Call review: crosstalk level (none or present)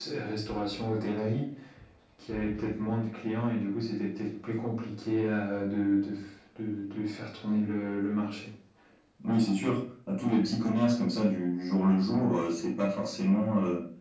none